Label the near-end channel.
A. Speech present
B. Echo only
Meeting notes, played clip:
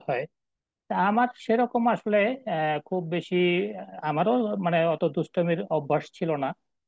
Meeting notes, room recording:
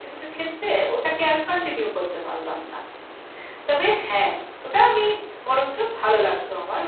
A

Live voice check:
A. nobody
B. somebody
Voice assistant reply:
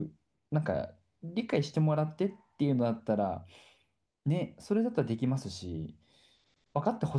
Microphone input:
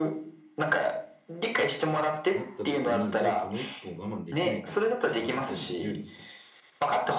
B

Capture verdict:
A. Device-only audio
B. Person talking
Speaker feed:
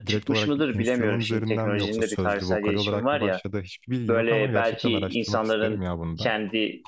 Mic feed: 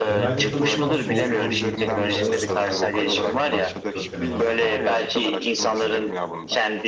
B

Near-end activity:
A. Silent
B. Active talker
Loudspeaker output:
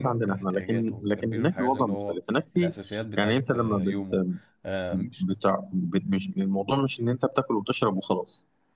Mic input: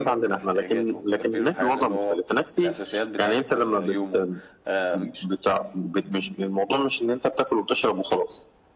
A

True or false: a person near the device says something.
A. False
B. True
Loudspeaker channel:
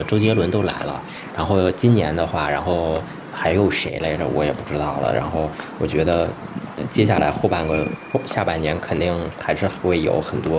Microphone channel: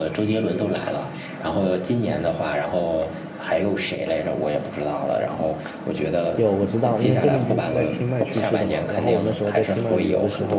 B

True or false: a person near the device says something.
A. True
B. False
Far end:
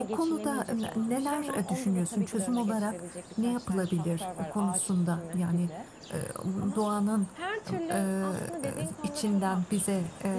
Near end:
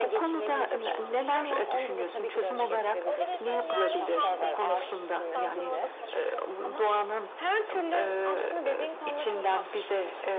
A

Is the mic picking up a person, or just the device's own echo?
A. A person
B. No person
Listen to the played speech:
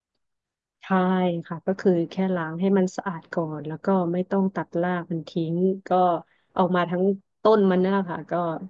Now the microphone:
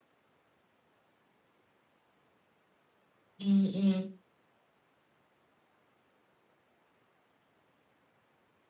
A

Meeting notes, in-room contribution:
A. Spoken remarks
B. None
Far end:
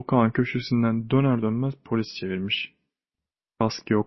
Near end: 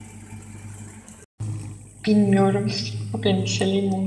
A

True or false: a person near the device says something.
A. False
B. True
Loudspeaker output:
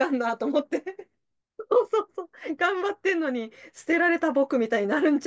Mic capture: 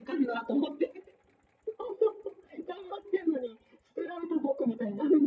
A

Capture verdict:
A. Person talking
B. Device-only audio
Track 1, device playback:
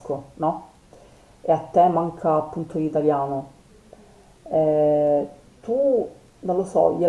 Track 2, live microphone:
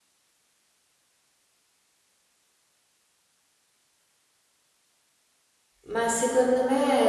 A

